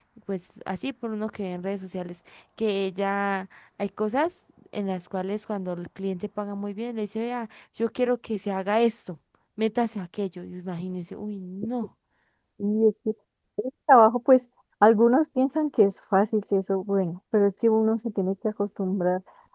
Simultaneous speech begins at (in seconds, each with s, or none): none